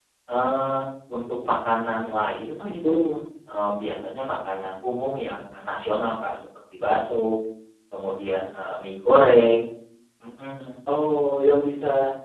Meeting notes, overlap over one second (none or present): none